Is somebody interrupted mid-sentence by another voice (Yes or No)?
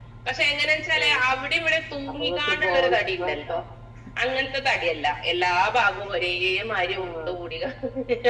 Yes